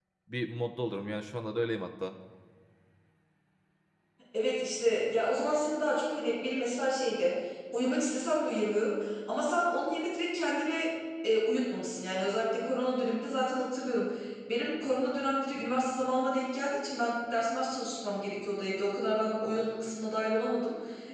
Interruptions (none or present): none